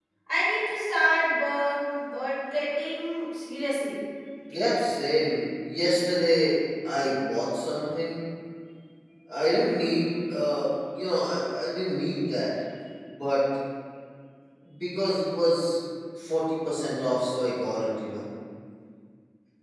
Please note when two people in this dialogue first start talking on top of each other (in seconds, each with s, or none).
none